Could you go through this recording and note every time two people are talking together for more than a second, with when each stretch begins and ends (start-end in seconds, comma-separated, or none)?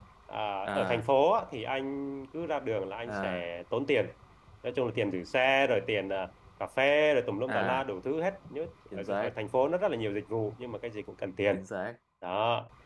none